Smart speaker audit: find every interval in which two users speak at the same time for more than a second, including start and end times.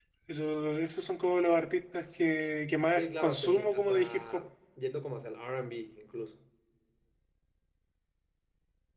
3.0-4.4

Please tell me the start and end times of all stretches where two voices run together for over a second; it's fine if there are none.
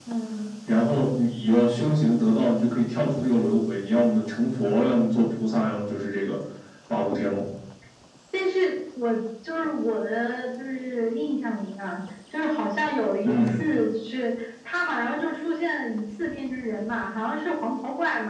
none

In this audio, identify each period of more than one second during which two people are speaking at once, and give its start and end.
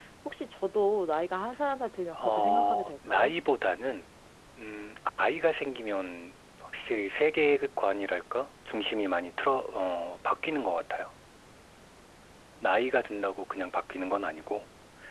2.1-3.3

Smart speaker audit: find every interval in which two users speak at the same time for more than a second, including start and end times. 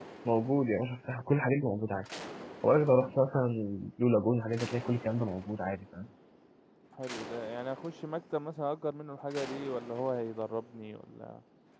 none

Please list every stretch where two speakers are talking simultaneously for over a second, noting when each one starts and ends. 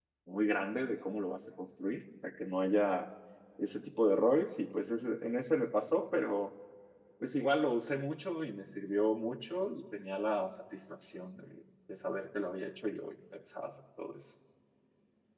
none

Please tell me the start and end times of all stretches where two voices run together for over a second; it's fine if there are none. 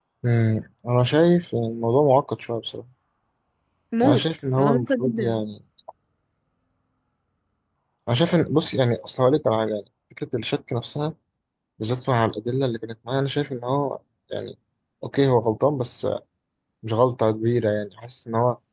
4.0-5.4

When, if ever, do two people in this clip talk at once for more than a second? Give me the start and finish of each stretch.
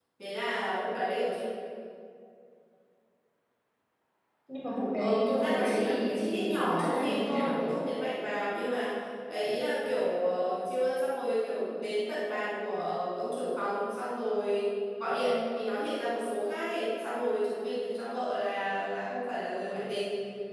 4.9-7.7

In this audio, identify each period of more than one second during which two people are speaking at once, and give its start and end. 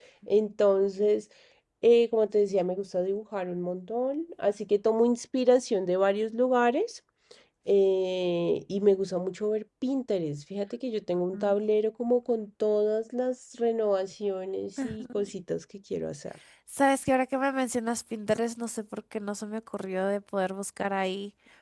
none

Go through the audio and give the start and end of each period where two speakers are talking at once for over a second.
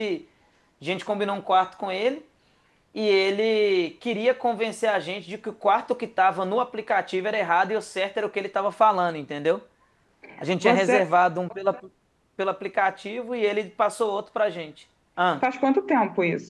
none

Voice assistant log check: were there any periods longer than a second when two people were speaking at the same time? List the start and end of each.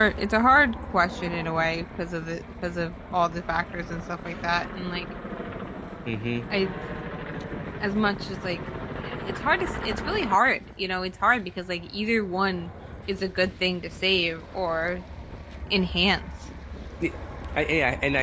none

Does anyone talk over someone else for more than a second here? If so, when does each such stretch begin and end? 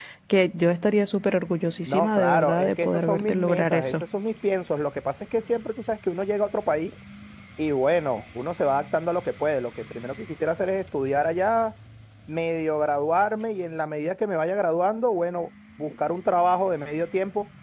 1.9-3.9

